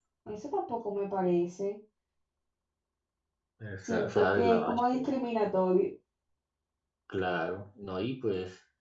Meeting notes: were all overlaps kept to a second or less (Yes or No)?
No